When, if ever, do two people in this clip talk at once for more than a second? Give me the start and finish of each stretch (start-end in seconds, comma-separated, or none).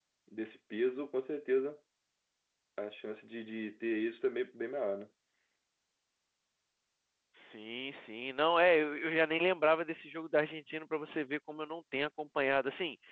none